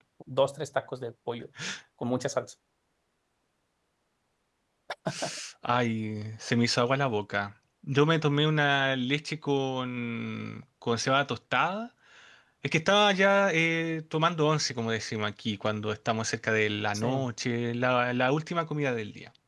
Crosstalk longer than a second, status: none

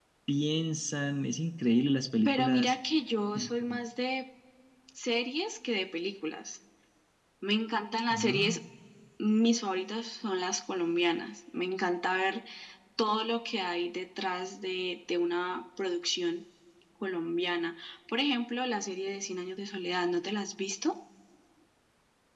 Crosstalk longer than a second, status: none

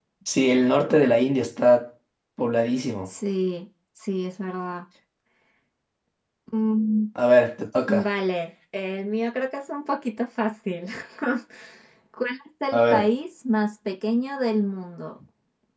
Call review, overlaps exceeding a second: none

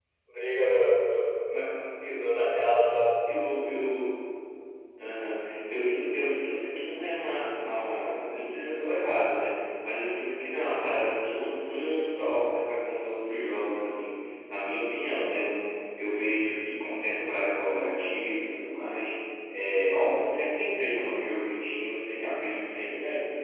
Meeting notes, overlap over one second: none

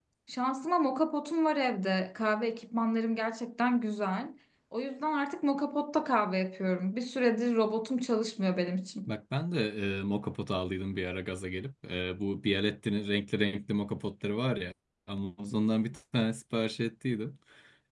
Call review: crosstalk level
none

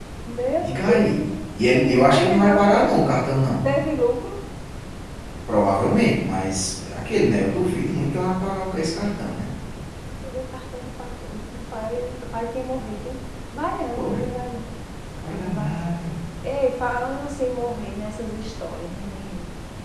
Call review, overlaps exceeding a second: present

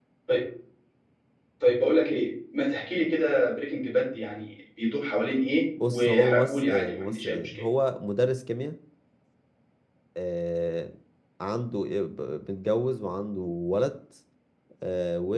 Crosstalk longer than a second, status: present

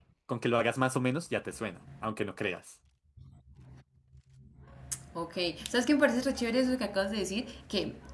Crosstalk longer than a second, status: none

